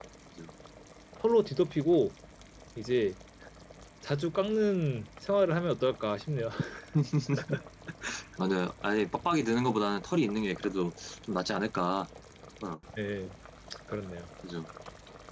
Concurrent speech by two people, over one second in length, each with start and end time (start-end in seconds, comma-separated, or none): none